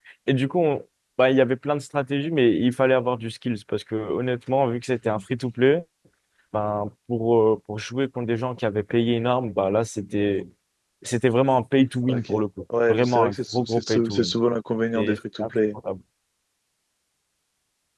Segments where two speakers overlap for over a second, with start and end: 12.9-14.3

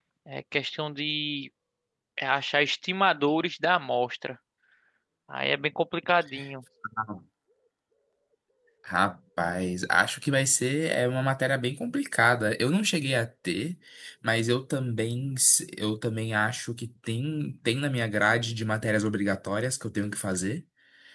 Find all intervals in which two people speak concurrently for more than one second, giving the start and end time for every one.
none

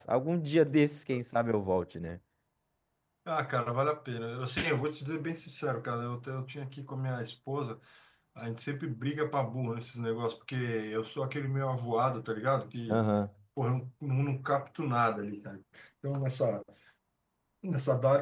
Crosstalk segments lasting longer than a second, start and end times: none

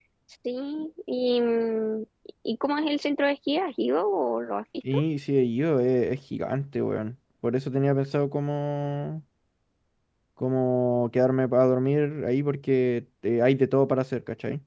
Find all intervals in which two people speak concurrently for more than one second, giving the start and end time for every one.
none

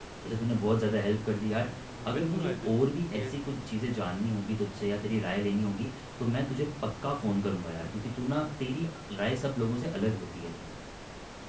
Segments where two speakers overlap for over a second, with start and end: 2.1-3.3

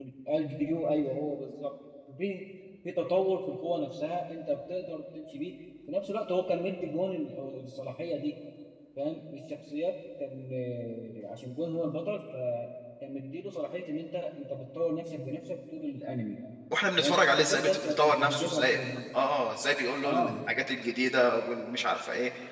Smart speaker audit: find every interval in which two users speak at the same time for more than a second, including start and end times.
17.0-18.8

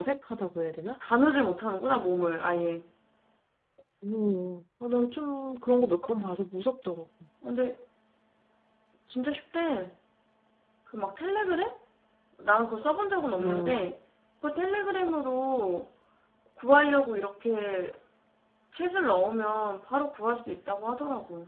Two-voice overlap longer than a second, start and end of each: none

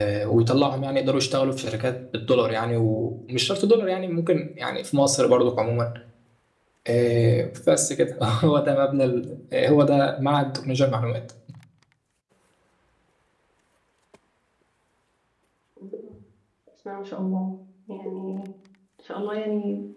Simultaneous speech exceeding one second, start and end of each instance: none

